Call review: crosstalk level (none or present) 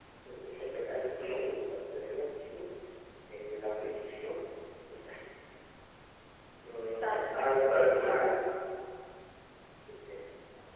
present